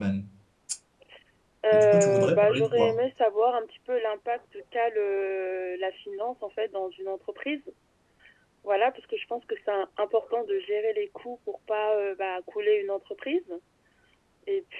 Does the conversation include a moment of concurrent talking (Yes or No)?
Yes